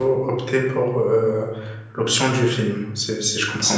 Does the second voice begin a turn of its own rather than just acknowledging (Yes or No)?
Yes